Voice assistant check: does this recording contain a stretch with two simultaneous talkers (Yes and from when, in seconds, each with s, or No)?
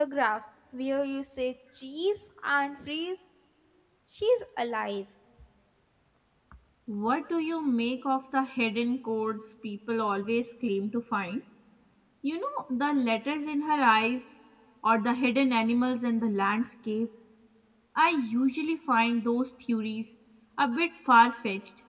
No